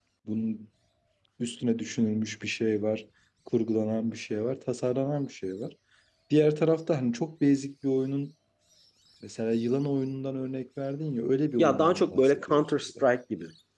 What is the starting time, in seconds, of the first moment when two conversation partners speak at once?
11.6 s

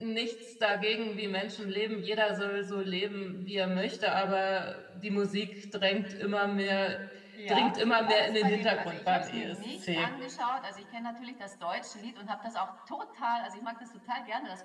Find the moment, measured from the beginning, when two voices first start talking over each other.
7.5 s

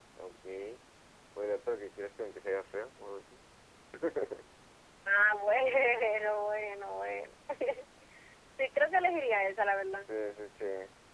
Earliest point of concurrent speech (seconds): none

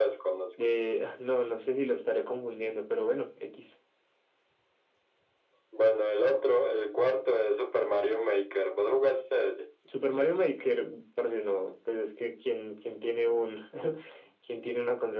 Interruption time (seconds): none

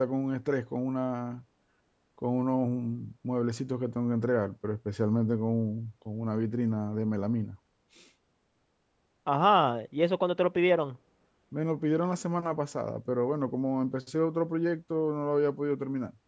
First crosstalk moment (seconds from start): none

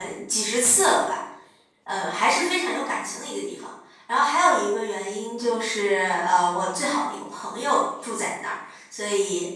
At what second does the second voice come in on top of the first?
none

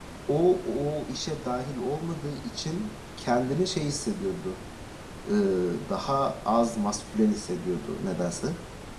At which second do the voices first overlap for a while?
none

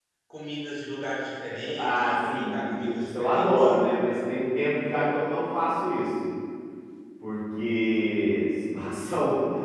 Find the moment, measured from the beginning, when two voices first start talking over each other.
1.8 s

